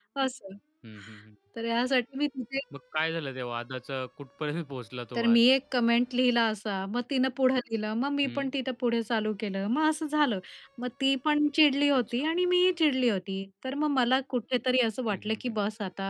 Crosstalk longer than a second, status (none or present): none